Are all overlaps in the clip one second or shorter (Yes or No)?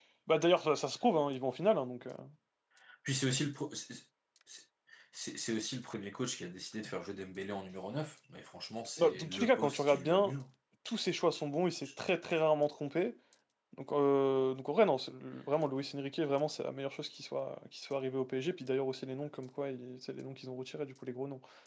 No